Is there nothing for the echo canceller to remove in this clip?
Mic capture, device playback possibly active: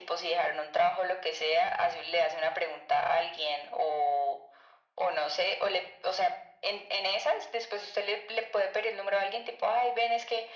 No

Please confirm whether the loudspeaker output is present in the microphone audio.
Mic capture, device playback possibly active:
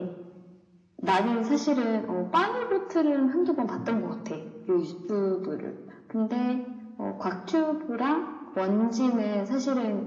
Yes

